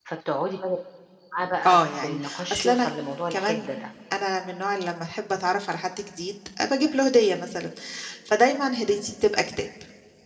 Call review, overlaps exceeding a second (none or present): present